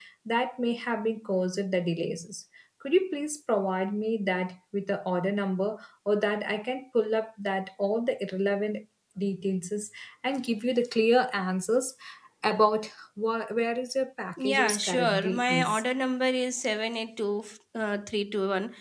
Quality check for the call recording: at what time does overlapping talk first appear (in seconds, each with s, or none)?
14.4 s